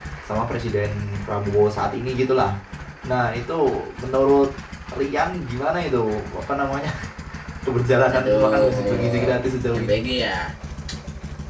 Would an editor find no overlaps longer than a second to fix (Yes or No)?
No